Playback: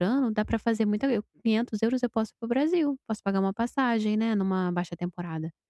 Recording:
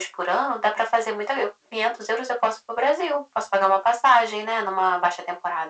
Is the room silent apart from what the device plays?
Yes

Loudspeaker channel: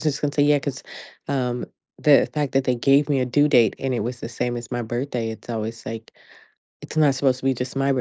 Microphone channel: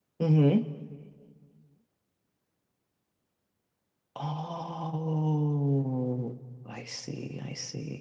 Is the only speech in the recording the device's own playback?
No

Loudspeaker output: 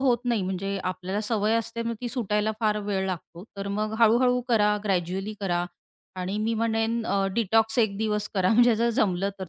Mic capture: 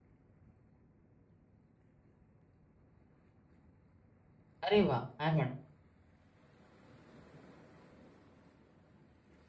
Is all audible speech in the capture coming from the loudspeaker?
No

